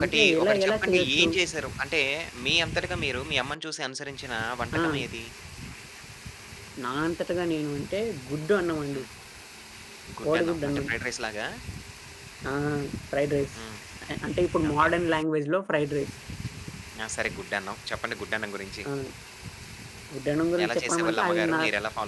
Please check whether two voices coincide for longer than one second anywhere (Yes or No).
Yes